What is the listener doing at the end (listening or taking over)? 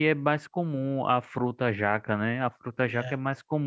listening